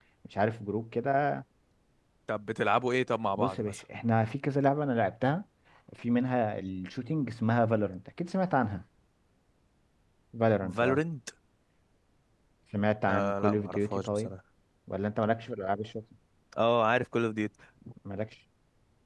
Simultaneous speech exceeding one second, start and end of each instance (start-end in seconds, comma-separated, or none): 13.1-14.3